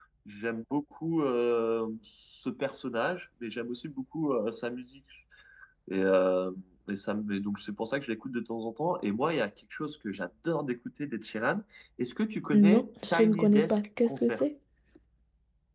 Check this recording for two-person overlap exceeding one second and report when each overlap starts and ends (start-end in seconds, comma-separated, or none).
12.5-14.4